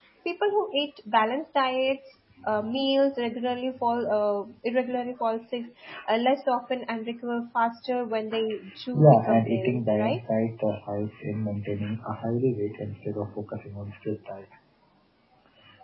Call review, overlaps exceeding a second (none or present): present